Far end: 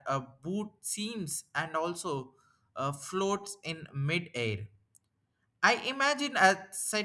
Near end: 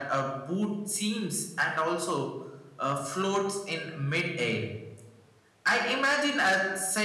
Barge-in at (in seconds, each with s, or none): none